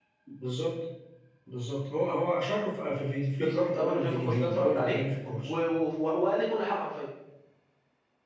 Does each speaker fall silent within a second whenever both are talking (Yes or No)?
No